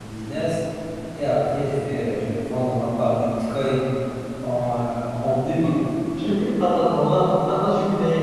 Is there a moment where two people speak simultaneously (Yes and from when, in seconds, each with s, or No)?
No